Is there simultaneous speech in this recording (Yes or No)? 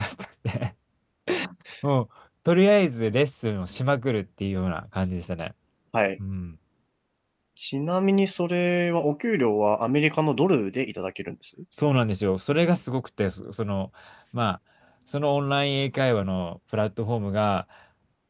No